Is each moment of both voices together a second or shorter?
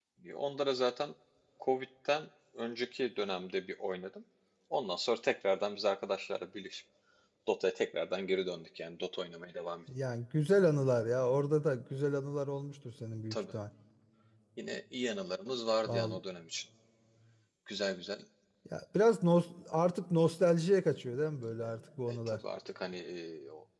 Yes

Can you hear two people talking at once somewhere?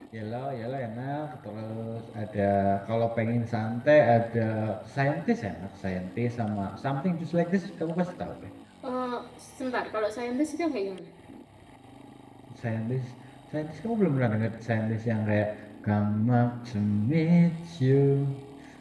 No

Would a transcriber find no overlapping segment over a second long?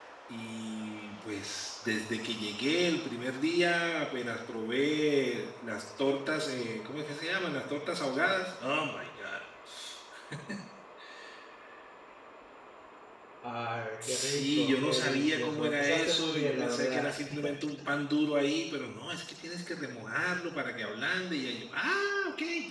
No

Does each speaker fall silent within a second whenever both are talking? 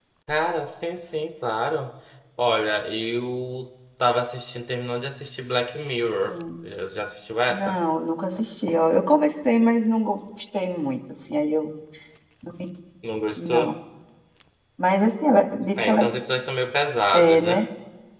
Yes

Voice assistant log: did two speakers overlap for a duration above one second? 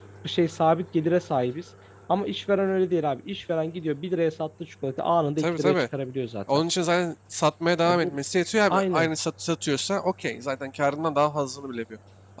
No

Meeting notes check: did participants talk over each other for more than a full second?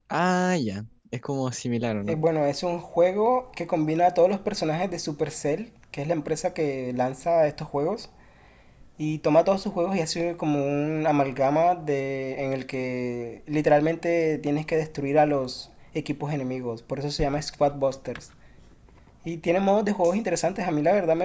No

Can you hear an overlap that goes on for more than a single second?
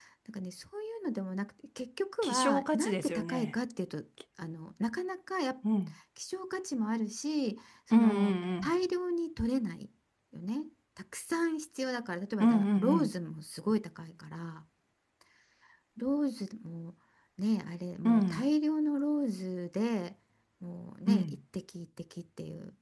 Yes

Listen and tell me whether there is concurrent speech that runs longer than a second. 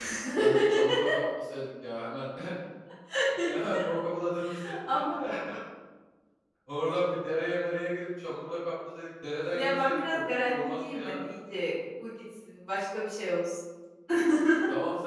Yes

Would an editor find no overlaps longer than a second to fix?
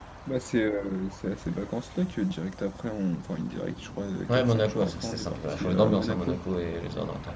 No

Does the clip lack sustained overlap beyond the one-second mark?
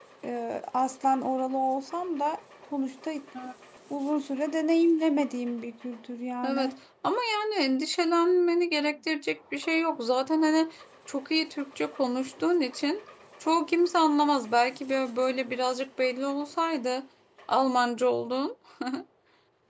Yes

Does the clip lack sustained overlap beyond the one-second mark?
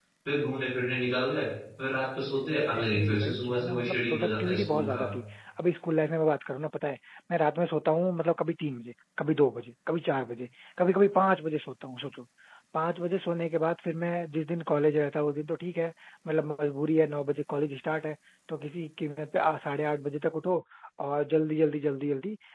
No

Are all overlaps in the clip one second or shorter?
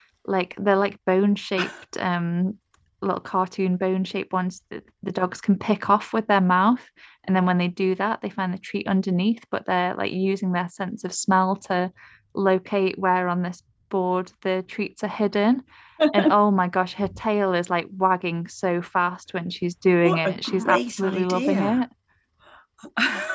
No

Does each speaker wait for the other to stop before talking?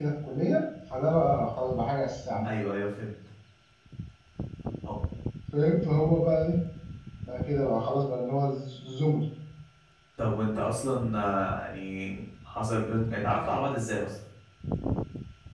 Yes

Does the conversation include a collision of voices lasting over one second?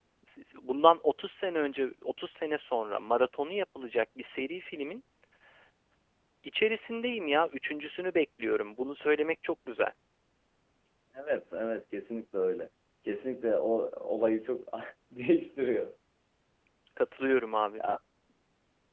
No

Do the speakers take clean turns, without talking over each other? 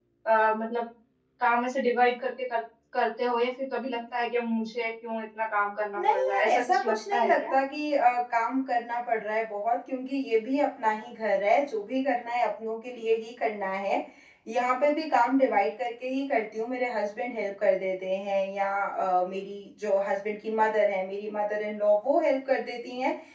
No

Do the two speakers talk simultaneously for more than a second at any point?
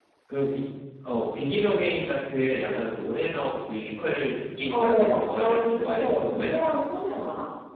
Yes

